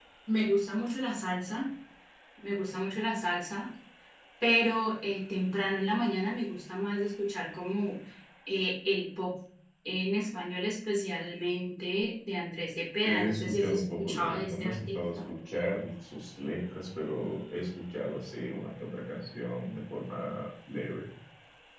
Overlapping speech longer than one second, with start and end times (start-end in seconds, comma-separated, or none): 13.0-15.3